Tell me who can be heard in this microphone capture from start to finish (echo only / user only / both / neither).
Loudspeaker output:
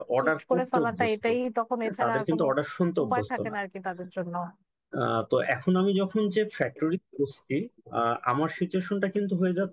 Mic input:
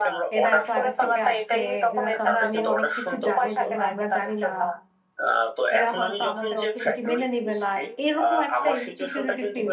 both